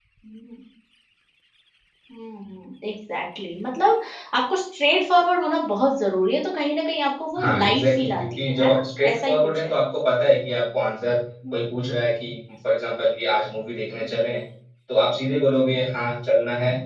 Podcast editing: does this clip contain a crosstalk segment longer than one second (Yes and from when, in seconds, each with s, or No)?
Yes, from 7.4 s